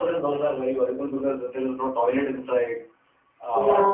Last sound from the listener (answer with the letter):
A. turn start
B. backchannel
B